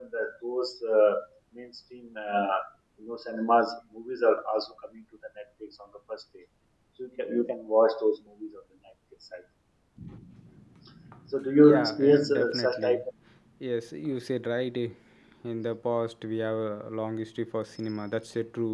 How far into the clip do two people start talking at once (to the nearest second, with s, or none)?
12 s